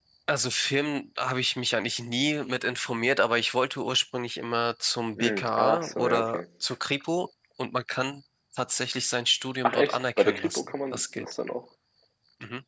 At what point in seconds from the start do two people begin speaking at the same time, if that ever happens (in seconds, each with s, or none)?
5.2 s